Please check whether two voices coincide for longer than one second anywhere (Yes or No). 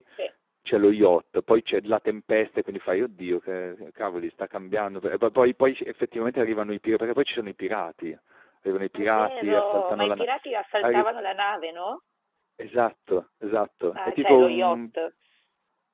Yes